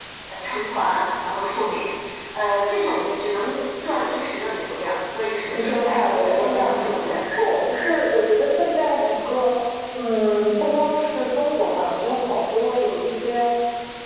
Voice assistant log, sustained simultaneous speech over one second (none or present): present